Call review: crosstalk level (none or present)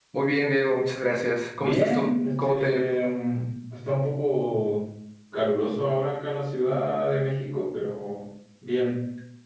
present